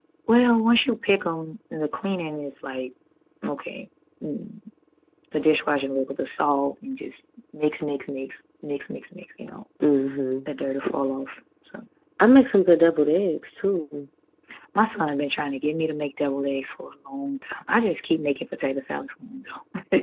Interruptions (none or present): none